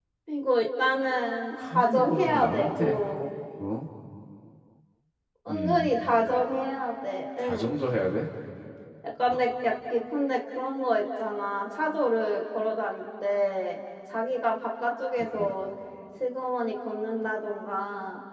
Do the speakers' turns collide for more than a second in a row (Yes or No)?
Yes